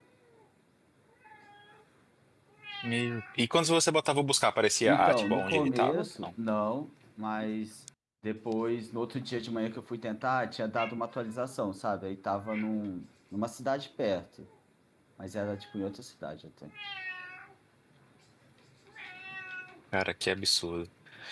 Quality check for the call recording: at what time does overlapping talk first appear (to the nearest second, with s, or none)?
5 s